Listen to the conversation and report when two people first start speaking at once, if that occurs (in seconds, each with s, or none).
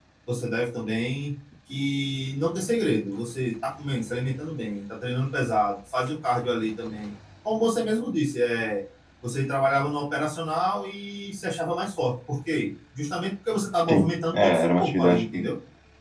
13.9 s